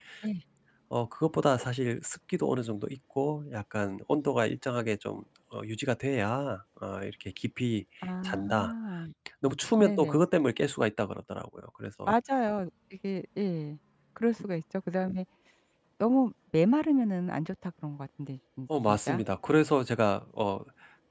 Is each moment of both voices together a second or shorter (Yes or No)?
Yes